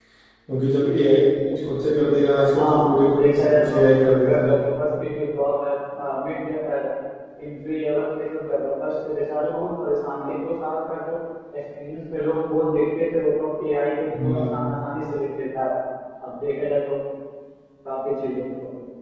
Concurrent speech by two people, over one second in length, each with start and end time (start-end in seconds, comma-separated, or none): 2.5-3.8